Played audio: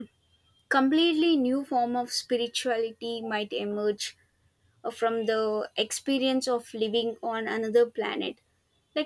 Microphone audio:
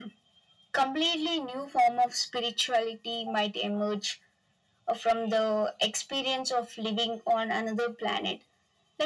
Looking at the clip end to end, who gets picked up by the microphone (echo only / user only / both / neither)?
echo only